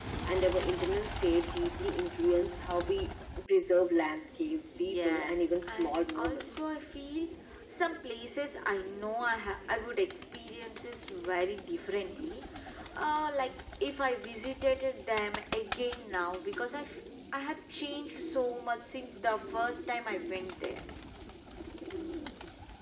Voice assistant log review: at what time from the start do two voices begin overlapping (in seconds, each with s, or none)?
4.8 s